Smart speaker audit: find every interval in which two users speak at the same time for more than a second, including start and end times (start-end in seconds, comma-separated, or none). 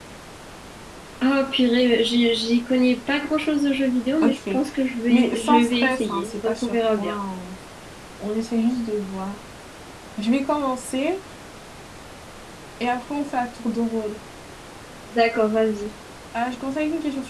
5.1-7.2